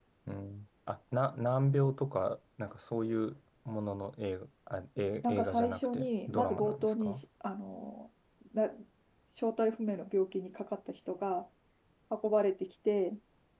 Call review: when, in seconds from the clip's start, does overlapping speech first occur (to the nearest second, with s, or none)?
5 s